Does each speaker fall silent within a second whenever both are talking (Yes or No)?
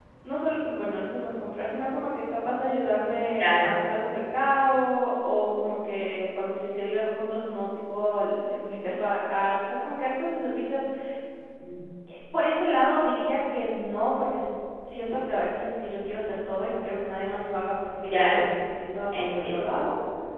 Yes